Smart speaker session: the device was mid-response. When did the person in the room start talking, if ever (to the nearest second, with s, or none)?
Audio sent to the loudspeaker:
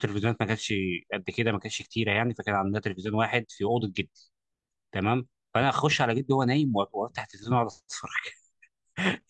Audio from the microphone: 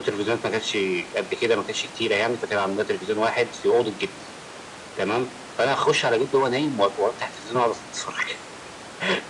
none